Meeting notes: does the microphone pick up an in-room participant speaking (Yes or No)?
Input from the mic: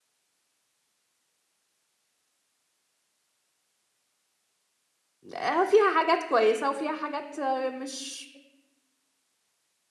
Yes